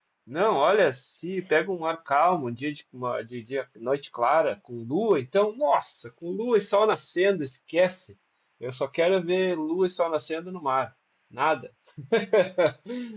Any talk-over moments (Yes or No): No